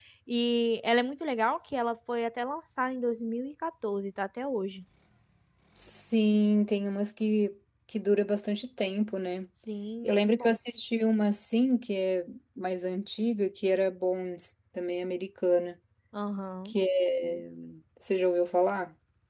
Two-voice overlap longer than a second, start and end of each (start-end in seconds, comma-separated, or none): none